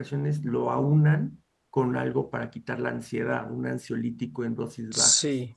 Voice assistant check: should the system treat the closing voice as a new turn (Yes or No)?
Yes